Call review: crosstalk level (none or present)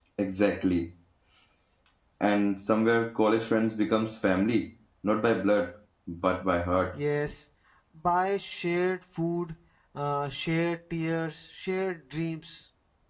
none